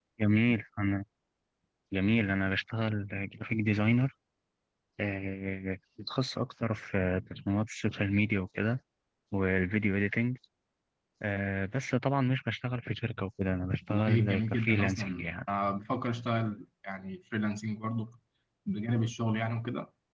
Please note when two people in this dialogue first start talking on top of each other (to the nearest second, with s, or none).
14 s